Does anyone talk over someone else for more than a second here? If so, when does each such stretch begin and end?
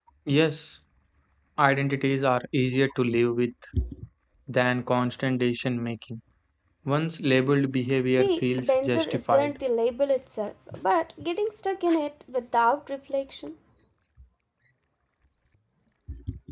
8.1-9.6

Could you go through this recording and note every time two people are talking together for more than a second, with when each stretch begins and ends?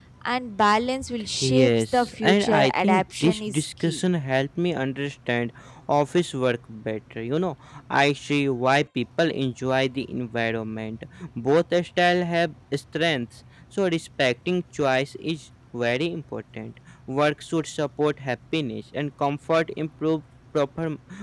1.4-4.0

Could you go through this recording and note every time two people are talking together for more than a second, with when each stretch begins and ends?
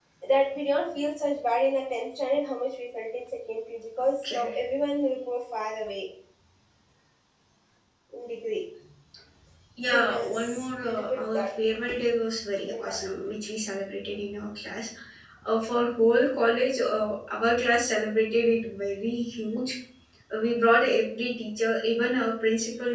9.8-11.5

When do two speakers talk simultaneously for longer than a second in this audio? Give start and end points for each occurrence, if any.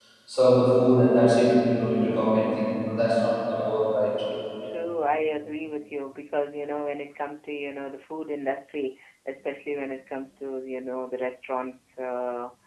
none

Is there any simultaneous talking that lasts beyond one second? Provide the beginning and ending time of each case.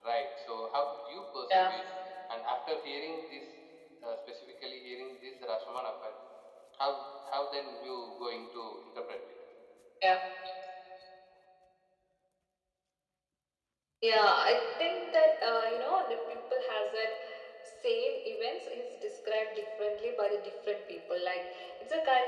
none

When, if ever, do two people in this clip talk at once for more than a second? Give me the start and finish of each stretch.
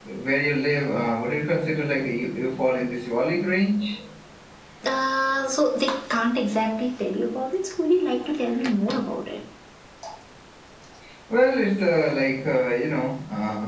none

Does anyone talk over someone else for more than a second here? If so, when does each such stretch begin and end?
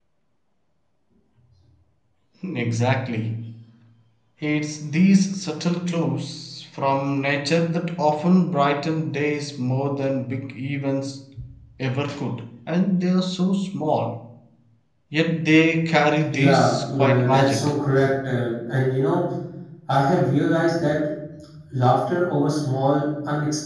16.3-17.7

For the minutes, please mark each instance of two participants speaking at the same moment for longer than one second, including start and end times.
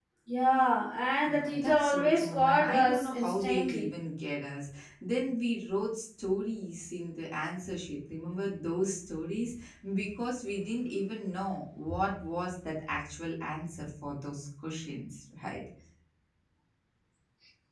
1.2-3.9

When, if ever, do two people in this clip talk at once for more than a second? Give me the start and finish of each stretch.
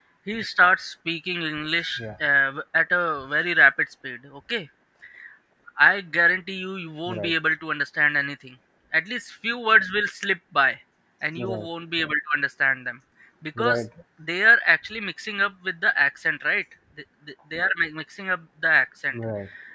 none

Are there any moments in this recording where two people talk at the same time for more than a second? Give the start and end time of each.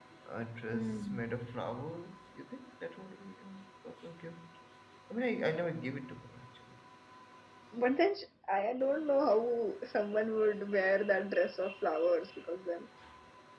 none

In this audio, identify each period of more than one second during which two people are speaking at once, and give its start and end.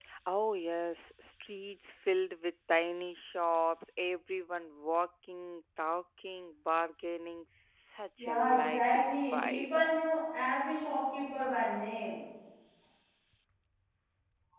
8.2-9.8

